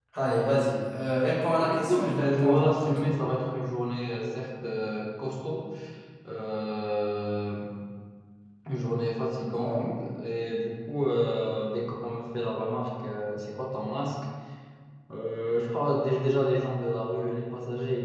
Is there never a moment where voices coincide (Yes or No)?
No